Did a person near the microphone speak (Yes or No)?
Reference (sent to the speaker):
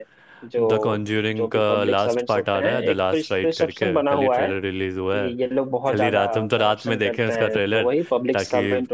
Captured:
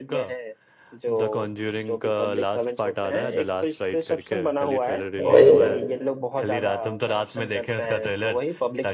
Yes